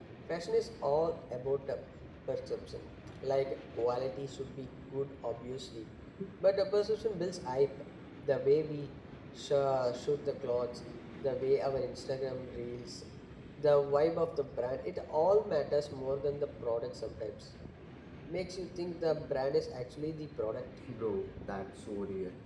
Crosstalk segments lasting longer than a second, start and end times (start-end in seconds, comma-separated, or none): none